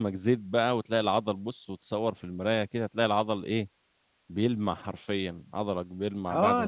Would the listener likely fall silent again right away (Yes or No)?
No